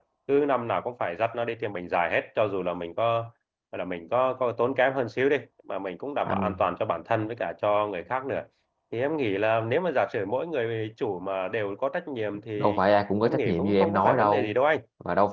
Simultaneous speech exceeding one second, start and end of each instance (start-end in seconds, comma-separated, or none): 13.2-14.6